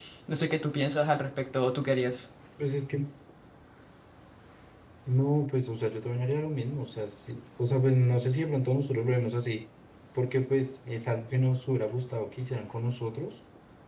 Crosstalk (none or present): none